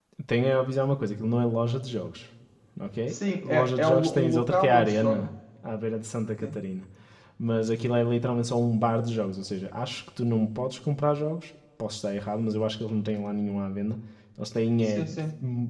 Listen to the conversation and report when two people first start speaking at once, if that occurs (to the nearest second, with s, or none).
3 s